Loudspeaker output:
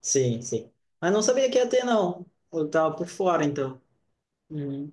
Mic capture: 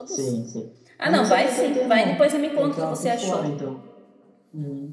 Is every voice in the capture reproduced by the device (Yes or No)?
No